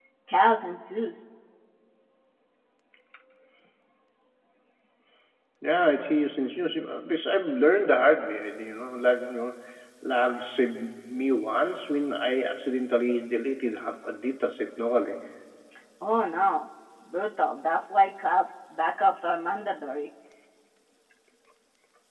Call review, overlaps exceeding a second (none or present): none